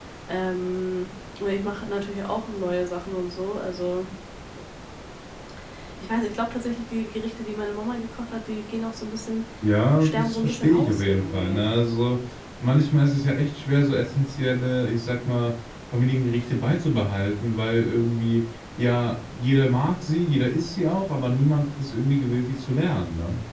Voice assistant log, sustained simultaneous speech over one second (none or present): present